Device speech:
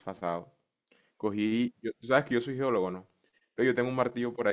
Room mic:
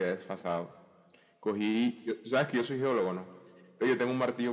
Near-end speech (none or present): none